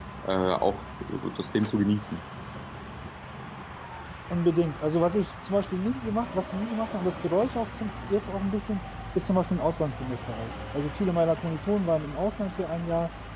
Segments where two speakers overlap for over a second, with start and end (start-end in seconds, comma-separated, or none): none